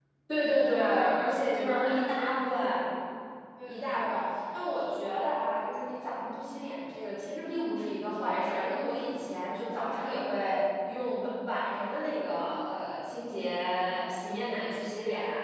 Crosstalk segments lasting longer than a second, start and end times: 1.6-2.9

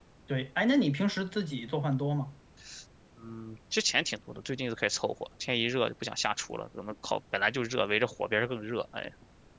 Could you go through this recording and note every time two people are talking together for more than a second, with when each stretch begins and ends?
none

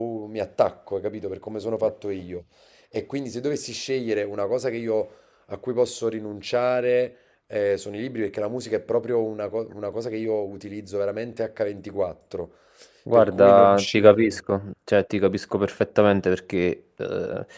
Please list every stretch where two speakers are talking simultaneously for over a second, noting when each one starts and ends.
13.1-14.4

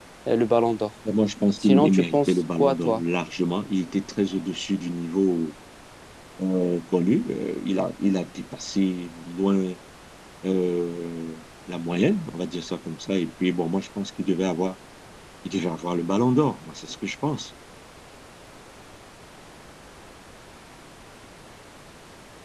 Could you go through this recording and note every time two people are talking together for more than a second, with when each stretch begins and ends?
1.6-3.0

